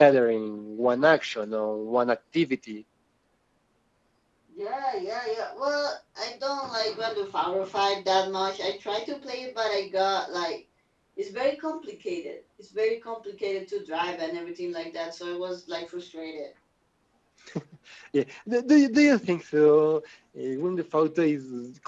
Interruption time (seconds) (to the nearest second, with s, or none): none